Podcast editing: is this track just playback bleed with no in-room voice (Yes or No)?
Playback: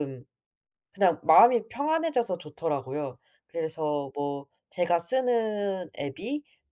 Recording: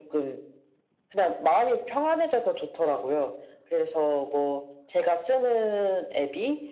Yes